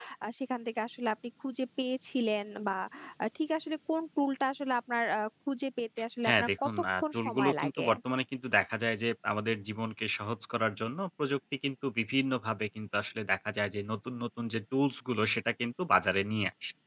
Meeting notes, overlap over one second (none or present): present